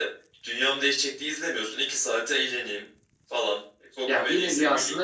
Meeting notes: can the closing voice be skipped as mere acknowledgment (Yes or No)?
No